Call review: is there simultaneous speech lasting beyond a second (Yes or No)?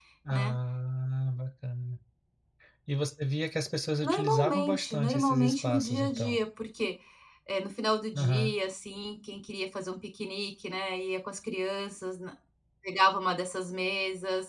Yes